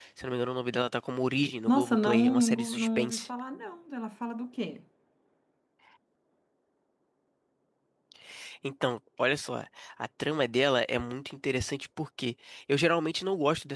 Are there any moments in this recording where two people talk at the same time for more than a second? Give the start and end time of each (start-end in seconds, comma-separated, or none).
1.7-3.3